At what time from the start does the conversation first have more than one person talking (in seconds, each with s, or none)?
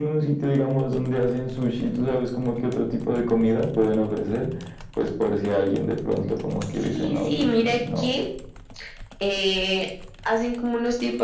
6.8 s